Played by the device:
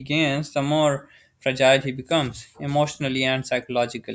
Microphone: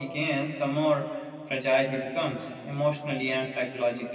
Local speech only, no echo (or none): none